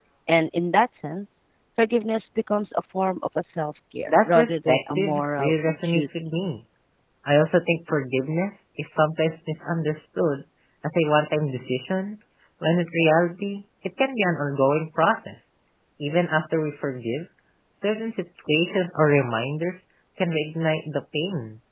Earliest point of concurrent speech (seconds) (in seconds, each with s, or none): 4.1 s